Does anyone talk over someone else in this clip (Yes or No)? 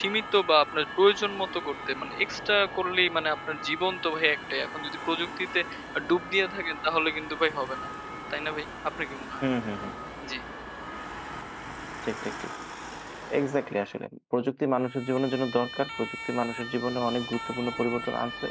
No